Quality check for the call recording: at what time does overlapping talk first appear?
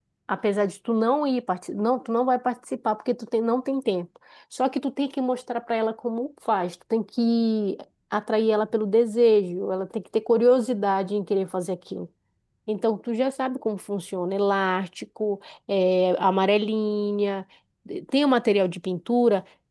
none

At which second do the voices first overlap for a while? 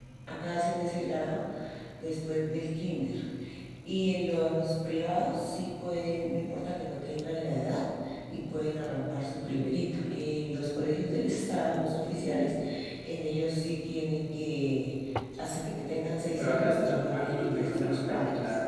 16.4 s

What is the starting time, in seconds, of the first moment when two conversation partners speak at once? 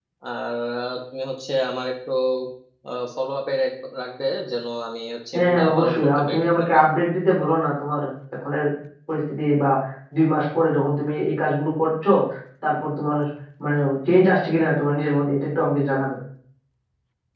5.3 s

